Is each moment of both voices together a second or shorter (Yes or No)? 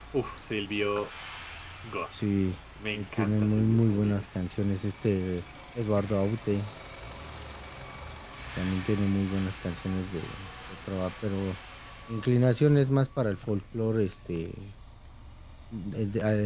No